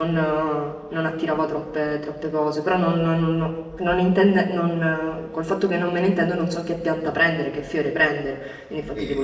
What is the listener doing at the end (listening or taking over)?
listening